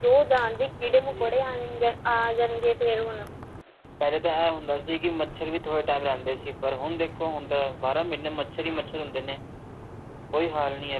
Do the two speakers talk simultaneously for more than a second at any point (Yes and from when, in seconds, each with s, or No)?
No